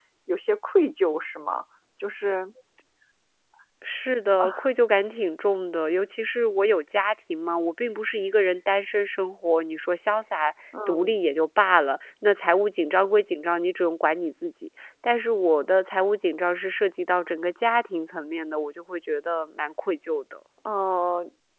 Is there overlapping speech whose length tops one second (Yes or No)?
No